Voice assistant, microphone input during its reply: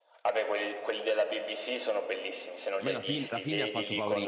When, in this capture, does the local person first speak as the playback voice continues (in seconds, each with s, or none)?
2.8 s